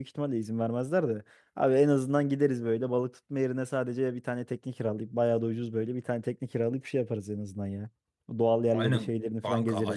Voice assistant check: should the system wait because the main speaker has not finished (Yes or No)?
No